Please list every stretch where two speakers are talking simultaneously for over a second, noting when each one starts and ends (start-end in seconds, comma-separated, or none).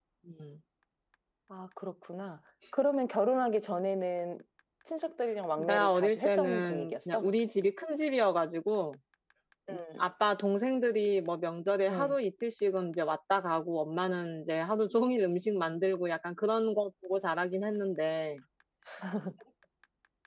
5.6-7.3